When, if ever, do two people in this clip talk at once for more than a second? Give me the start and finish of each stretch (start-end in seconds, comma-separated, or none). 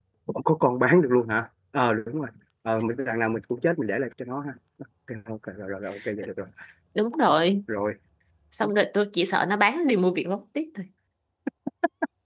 none